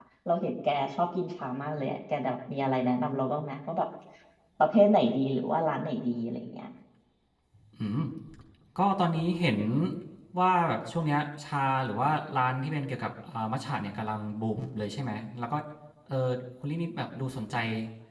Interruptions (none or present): none